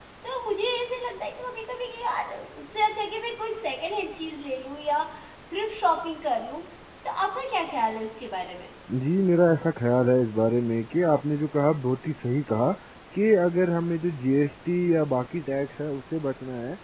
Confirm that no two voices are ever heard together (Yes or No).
Yes